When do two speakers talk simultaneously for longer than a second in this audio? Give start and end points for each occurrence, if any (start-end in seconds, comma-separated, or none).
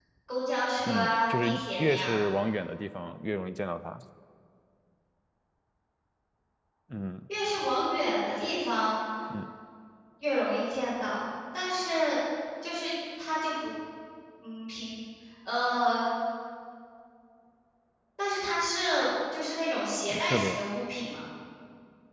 0.9-2.2